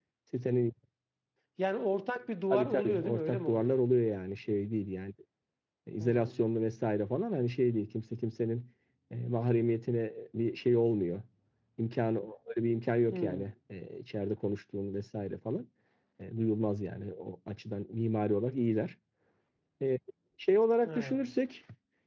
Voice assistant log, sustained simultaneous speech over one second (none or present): present